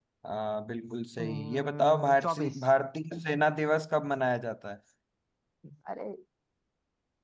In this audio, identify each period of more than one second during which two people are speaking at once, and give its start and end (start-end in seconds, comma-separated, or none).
1.2-2.6